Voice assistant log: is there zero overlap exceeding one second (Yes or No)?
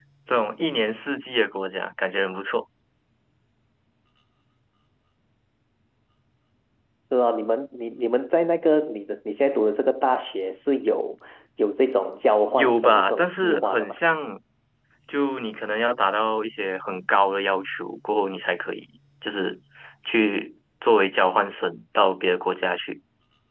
No